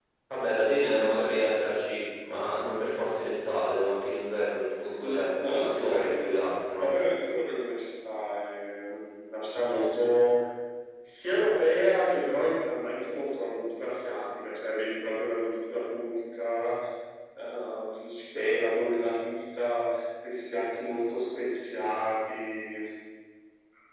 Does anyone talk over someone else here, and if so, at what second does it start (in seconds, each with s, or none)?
4.8 s